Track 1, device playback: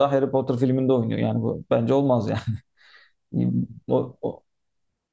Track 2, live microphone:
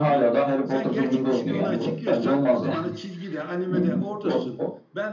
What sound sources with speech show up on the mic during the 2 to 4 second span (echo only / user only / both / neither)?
both